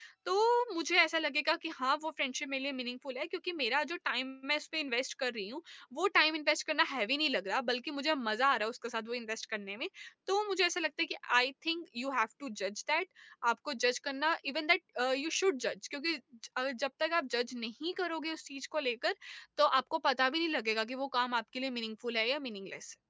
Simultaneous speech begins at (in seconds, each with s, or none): none